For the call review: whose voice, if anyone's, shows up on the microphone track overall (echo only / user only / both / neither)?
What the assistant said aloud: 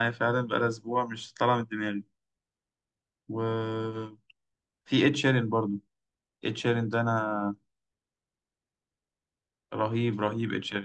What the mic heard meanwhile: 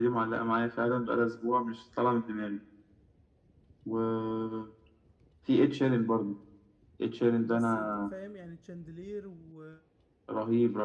both